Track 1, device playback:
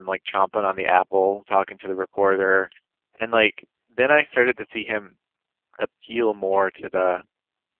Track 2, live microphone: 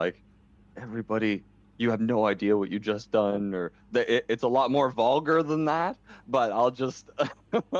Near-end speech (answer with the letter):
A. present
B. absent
A